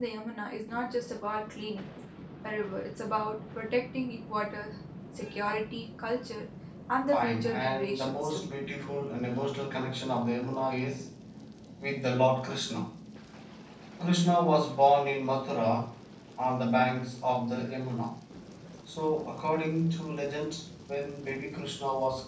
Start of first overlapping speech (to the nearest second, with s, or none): 7 s